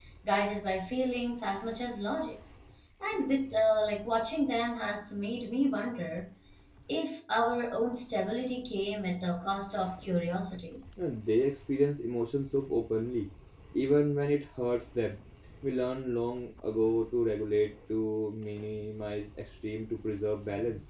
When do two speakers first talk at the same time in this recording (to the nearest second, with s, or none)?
none